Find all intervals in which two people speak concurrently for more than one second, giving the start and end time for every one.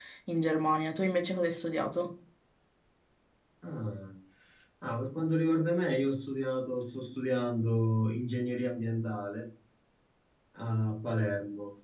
none

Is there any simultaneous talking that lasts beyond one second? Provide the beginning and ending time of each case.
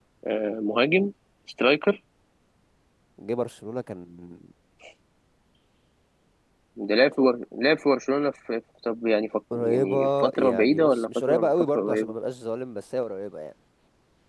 9.6-12.1

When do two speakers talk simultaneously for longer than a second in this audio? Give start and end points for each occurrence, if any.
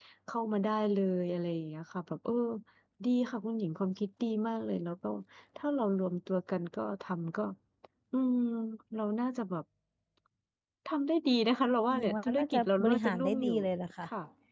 12.0-13.6

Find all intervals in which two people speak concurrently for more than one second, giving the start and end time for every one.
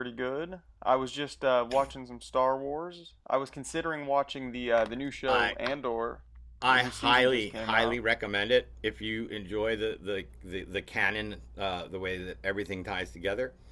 6.7-8.0

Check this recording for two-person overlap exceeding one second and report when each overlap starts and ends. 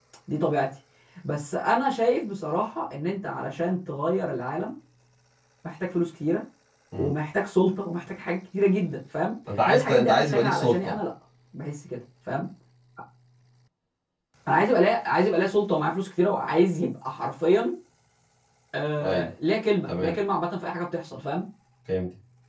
9.6-11.0

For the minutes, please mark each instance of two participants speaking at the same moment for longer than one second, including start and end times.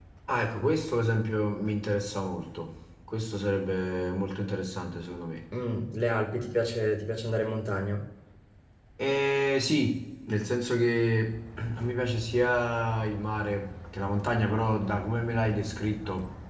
none

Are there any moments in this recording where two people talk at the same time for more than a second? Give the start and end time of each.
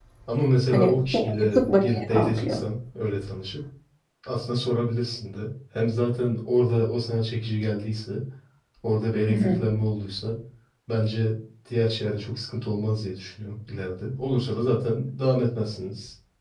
0.7-2.6

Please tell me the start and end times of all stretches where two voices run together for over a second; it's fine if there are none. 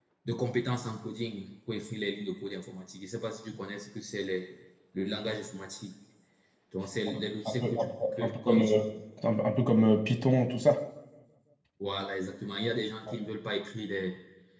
7.1-8.8

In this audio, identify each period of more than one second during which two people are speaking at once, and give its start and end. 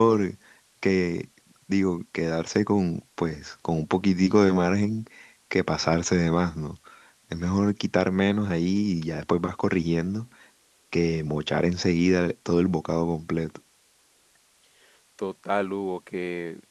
none

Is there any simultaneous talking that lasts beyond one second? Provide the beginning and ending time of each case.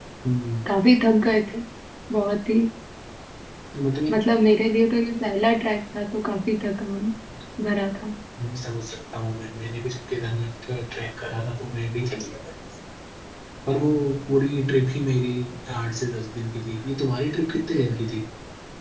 none

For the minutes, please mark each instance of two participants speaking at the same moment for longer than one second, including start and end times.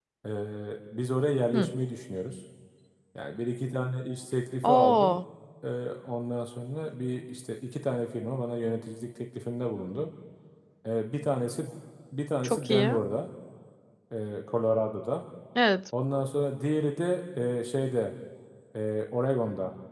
none

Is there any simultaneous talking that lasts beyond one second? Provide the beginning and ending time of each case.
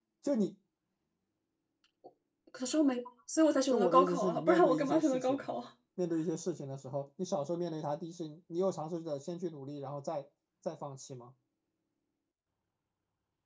3.7-5.5

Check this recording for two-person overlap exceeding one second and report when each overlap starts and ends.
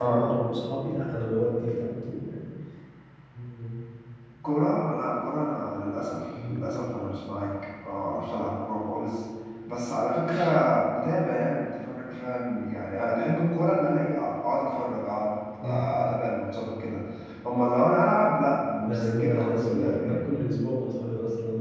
18.8-20.2

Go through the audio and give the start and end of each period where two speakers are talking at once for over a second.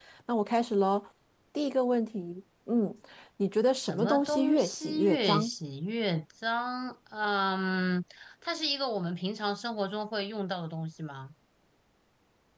3.8-5.5

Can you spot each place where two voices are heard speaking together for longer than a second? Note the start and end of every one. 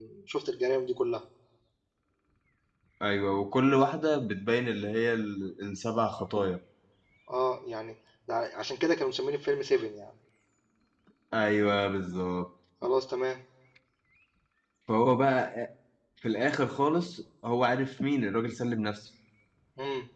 none

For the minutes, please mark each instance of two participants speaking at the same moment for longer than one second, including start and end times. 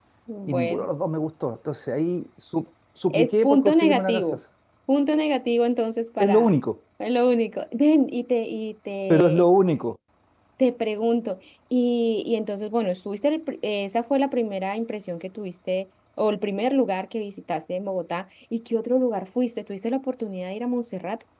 3.1-4.4

